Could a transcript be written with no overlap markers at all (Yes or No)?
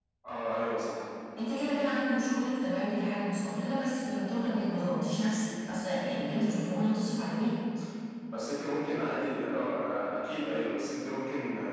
Yes